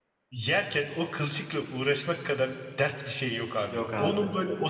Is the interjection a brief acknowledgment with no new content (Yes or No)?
Yes